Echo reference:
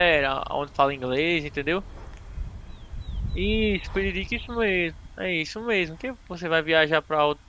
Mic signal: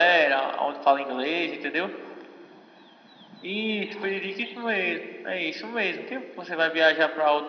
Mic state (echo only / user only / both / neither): echo only